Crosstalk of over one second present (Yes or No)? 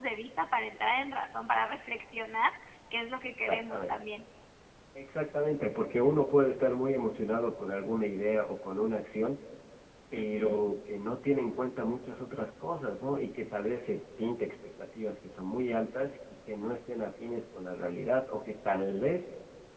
No